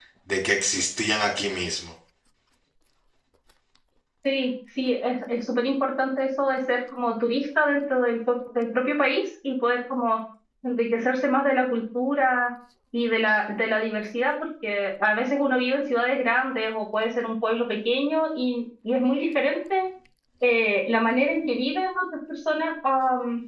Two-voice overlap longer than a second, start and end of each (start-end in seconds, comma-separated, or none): none